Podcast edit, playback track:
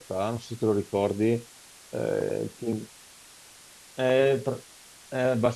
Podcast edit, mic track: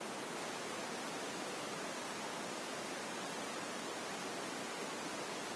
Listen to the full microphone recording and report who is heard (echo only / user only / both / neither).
neither